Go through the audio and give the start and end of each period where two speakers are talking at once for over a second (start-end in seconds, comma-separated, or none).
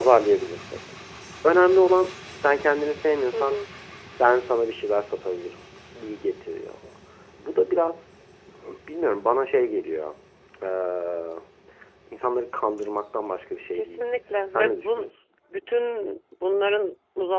13.8-15.1